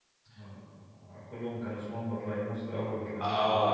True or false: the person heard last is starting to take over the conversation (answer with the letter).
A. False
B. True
B